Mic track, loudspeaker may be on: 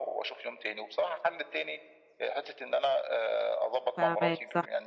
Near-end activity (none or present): present